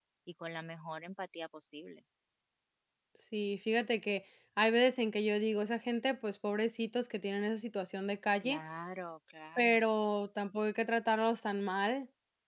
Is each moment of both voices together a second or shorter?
Yes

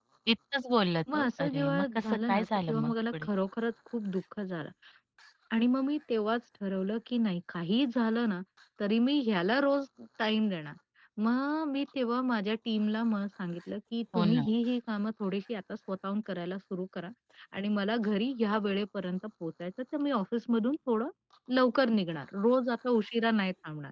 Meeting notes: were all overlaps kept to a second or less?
No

